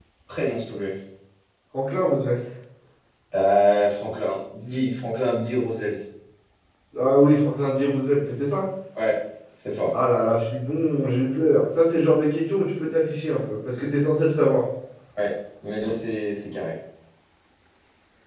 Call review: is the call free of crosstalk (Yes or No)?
Yes